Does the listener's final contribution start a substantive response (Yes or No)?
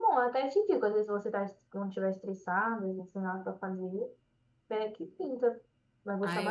Yes